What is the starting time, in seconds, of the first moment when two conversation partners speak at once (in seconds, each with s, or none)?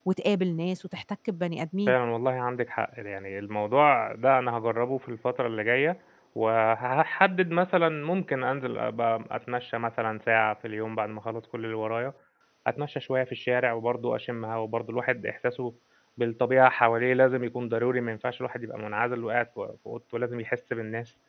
none